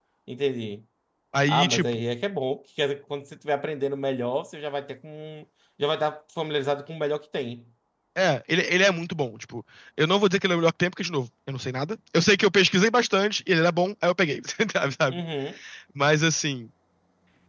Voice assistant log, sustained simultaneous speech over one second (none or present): none